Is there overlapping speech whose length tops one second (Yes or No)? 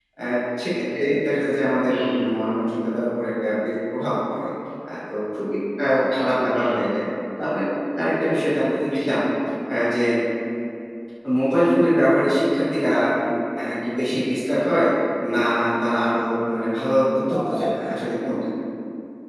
No